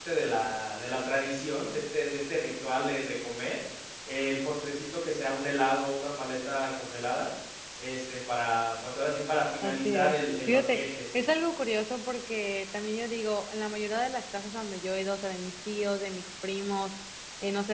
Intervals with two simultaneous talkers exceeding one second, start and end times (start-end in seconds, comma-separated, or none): 9.6-11.0